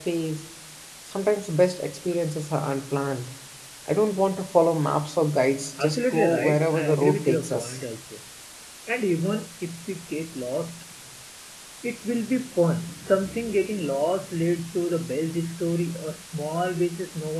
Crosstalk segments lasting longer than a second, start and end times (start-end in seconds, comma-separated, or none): 5.8-7.8